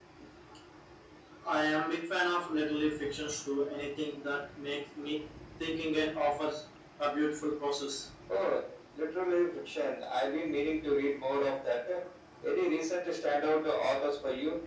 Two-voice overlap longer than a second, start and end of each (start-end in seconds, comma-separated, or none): none